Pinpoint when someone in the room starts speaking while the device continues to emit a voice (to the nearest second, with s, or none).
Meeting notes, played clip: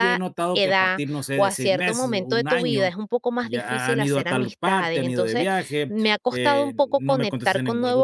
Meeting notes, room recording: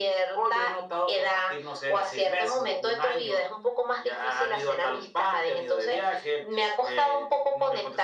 none